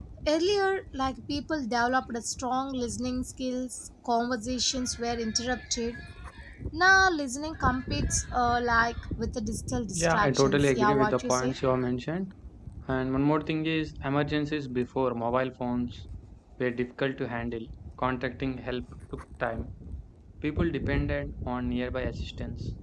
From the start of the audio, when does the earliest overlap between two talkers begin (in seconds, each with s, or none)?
9.9 s